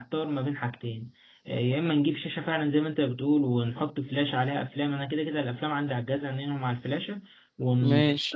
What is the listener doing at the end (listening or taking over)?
listening